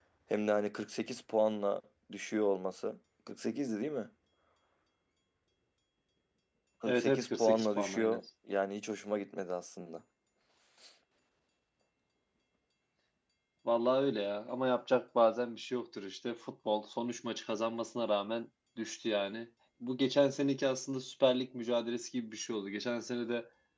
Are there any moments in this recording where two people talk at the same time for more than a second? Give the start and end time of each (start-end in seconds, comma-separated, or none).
6.9-8.2